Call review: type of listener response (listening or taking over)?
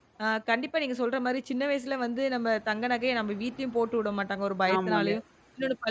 listening